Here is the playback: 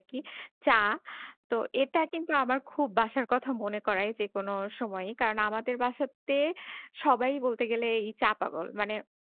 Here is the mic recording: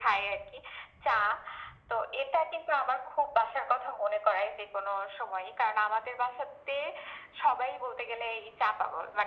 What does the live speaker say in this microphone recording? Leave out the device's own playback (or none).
none